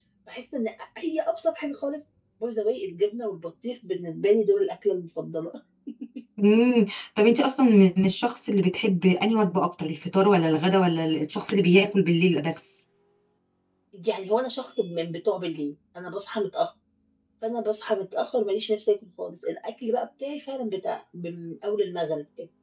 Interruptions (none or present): none